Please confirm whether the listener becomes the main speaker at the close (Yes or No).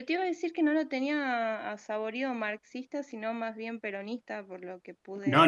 Yes